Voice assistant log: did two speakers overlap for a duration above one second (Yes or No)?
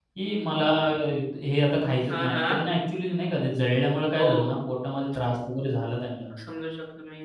No